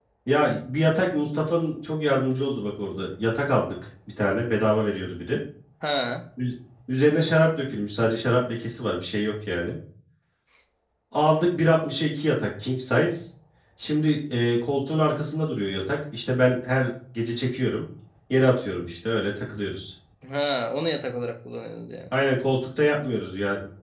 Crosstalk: none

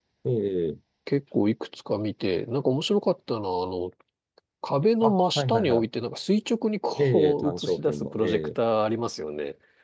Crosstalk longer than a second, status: present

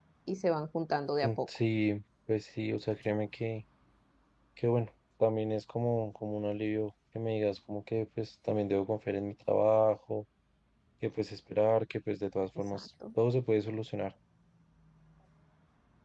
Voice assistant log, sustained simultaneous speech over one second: none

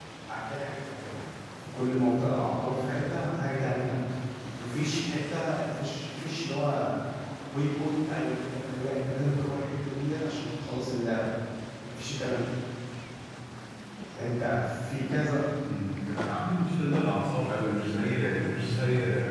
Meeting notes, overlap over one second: none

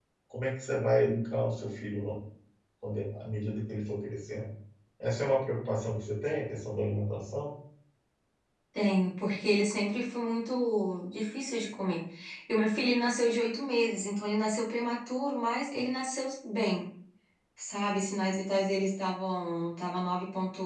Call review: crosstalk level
none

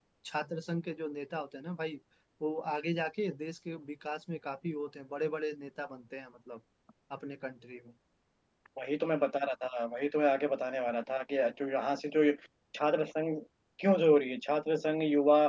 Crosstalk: none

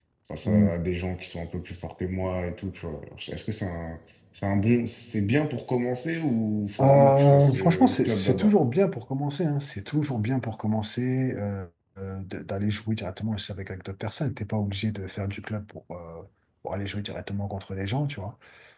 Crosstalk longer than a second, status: present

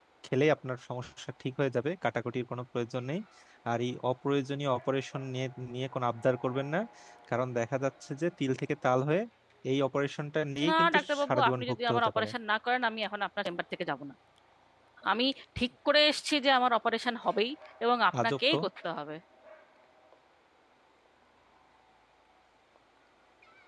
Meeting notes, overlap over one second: present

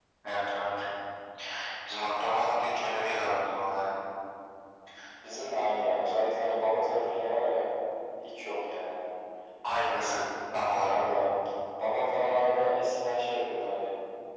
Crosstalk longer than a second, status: none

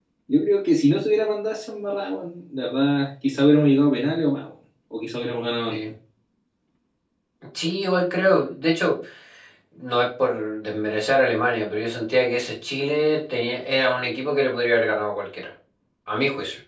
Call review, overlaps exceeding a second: none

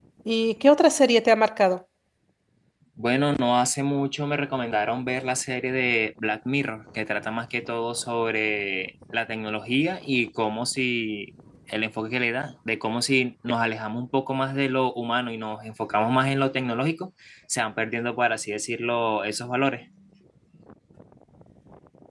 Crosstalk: none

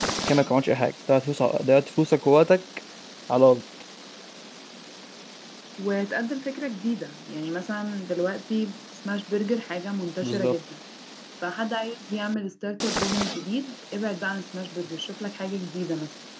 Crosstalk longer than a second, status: none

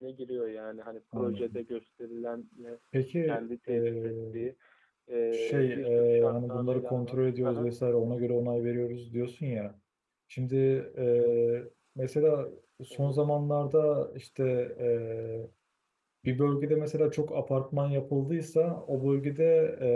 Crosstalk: present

